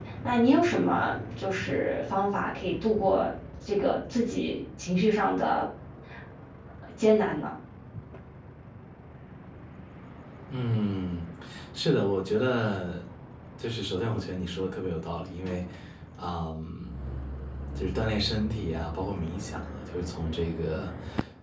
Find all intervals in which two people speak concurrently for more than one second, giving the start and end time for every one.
none

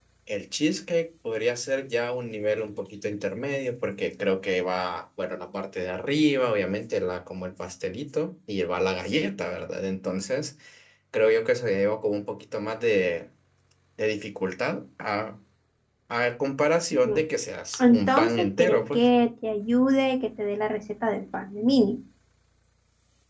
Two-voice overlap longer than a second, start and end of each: 17.8-19.1

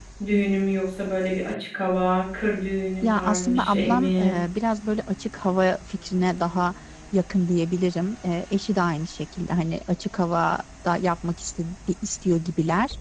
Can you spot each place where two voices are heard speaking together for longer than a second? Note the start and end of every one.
3.0-4.3

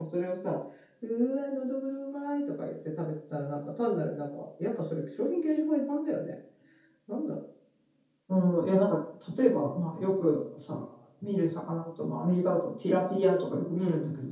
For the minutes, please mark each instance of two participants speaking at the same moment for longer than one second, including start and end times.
none

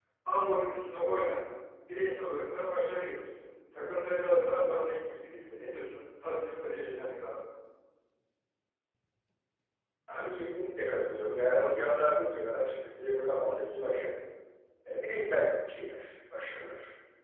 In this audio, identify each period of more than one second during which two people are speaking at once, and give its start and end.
none

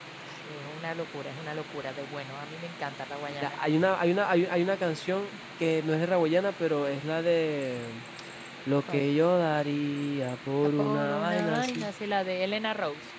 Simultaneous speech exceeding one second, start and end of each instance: 10.6-11.9

